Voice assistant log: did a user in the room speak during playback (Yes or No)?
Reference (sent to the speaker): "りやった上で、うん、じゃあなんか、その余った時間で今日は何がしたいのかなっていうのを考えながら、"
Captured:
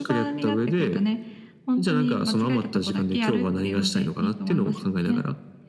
Yes